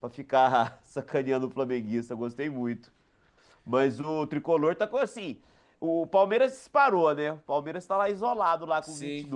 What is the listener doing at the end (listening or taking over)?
taking over